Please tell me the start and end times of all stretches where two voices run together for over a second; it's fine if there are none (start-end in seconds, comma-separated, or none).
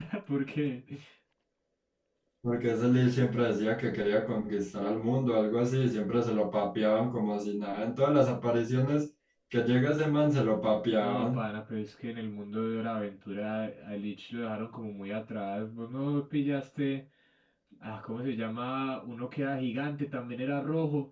none